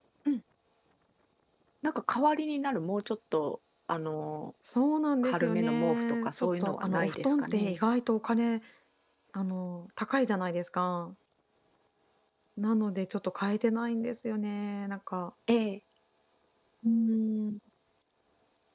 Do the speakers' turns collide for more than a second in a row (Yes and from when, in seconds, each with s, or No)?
Yes, from 5.2 s